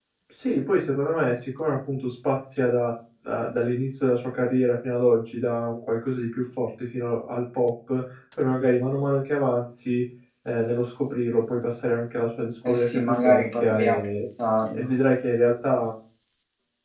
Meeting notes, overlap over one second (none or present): present